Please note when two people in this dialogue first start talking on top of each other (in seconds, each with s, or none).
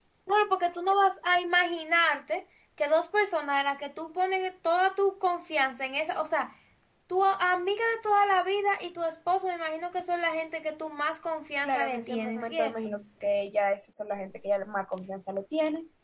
11.6 s